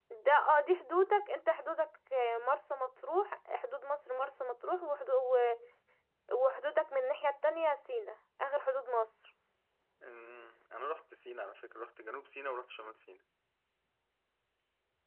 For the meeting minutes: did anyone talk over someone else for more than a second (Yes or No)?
No